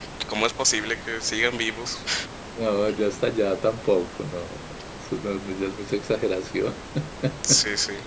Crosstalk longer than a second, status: none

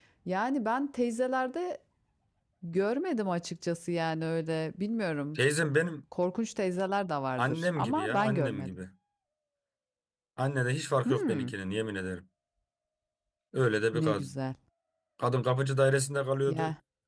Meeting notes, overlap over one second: present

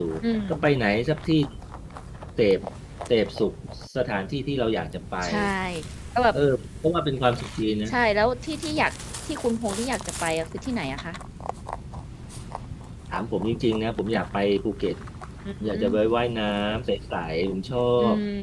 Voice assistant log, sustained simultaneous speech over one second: none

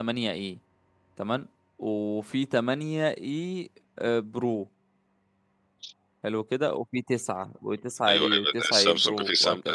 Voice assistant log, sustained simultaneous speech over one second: present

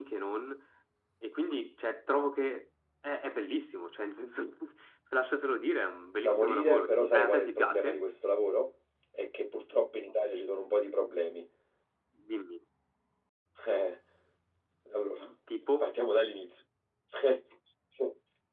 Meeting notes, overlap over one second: present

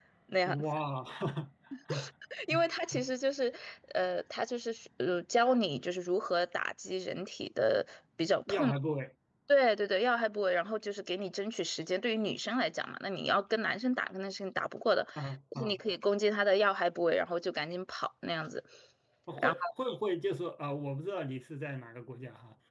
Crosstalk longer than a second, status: none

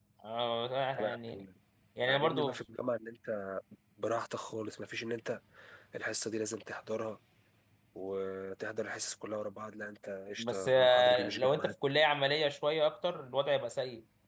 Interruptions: present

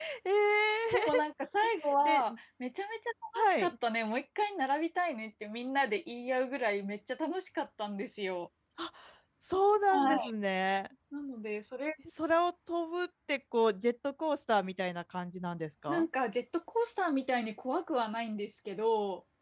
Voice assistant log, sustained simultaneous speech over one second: none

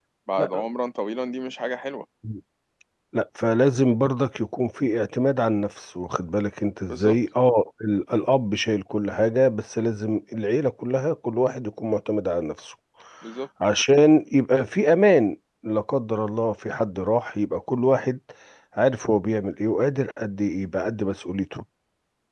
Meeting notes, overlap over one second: none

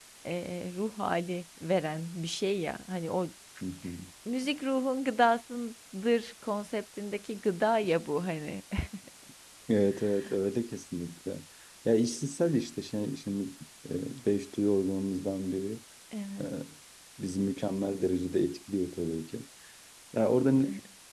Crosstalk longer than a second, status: none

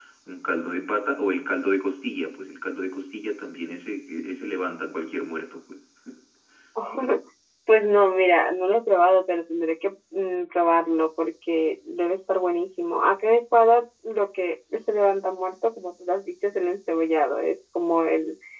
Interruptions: none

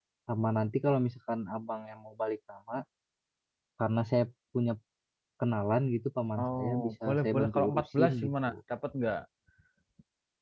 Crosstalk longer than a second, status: present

